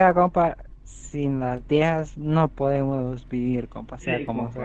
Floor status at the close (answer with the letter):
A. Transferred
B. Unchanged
A